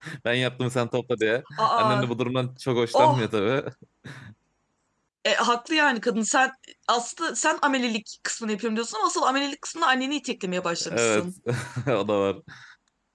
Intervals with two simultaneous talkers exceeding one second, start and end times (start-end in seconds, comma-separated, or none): none